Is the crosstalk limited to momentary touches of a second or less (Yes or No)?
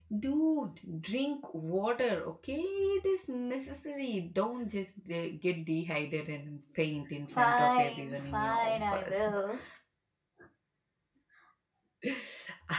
No